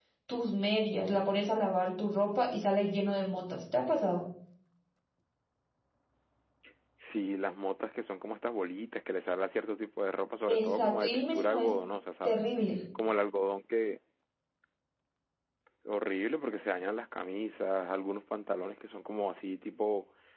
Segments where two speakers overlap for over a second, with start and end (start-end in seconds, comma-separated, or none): 10.5-11.7